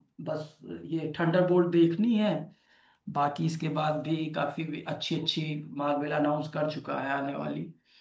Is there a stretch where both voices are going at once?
No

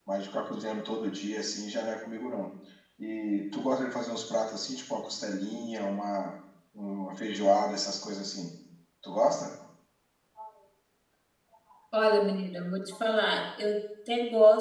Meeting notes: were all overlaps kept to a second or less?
Yes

